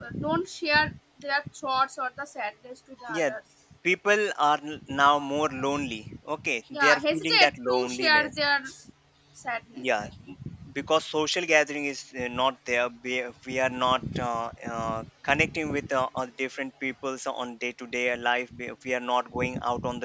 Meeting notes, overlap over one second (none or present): present